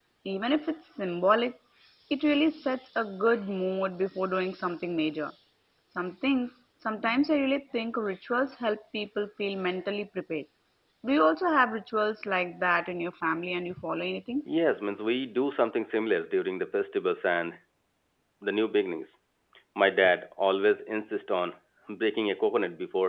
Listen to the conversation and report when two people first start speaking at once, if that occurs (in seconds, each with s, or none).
none